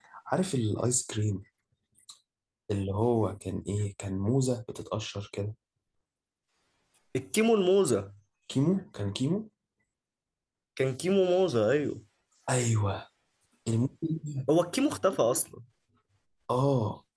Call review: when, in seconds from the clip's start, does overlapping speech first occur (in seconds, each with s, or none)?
none